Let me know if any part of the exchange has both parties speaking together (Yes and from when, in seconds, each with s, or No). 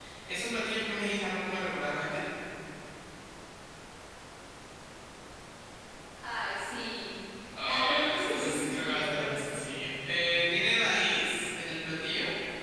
Yes, from 7.6 s